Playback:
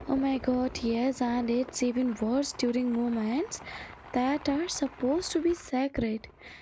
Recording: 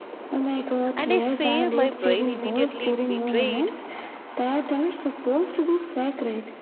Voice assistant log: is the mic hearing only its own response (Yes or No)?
No